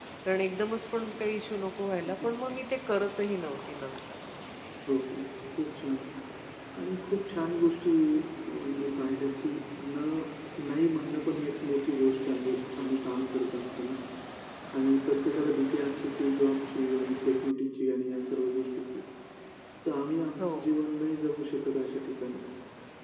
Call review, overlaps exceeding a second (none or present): none